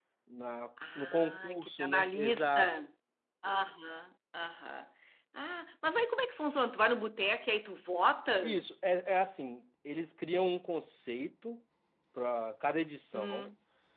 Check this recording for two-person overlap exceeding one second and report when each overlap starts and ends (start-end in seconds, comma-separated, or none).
1.0-2.7